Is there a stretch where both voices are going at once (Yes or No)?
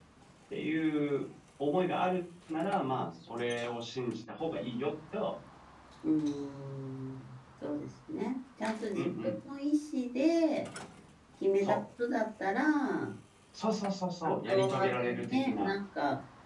Yes